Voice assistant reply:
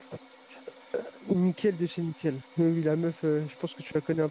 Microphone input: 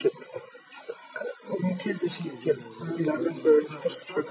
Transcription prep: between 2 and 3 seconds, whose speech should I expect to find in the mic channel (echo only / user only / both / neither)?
both